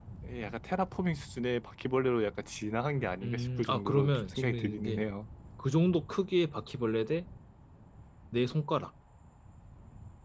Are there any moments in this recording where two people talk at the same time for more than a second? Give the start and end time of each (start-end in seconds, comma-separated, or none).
3.2-5.0